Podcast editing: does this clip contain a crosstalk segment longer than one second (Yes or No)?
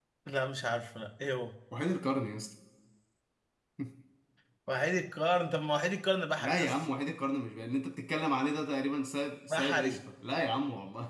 No